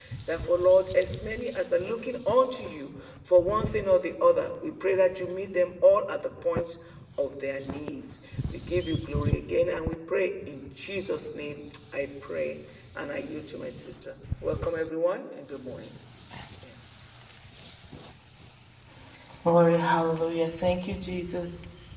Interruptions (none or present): none